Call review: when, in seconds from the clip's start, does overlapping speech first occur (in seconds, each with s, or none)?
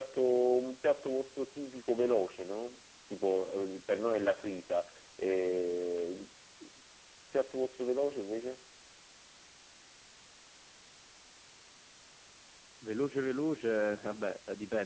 none